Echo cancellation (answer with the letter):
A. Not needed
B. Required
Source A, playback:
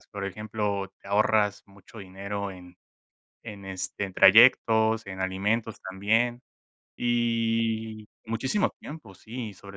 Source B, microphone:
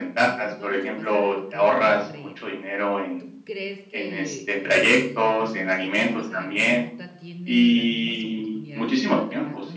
B